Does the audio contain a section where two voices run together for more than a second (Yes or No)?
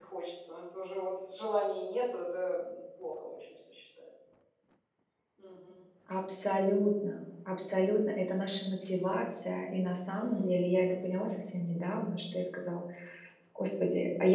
No